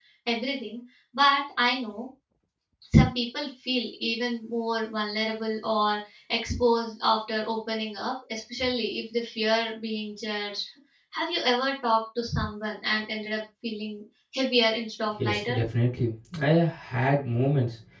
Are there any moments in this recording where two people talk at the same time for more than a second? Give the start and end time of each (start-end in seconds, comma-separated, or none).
none